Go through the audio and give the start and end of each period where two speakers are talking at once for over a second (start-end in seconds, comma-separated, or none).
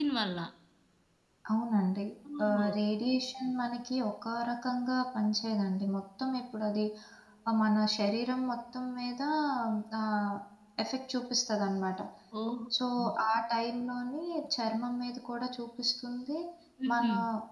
none